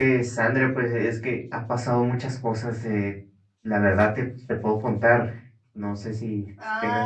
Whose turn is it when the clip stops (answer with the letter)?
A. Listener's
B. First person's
A